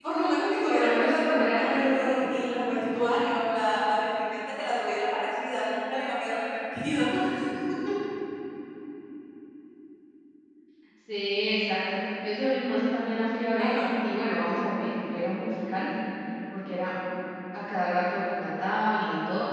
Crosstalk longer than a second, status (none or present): present